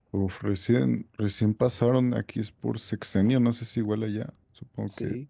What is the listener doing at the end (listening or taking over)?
taking over